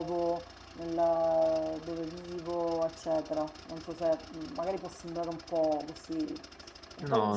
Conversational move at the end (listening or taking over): listening